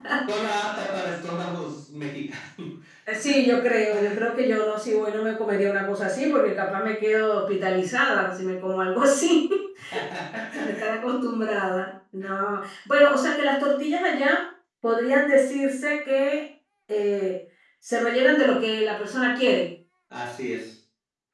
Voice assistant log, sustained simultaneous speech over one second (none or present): none